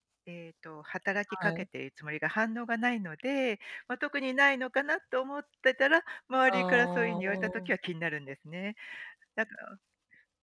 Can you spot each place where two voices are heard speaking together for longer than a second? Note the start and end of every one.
6.5-7.7

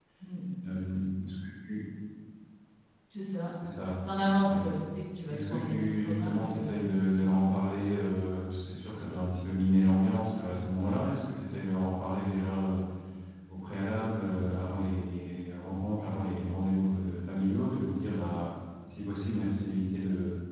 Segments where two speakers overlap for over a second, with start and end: 5.3-6.7

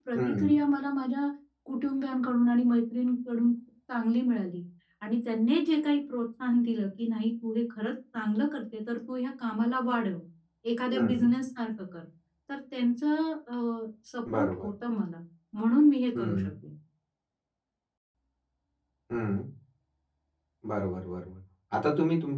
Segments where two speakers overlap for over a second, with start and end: none

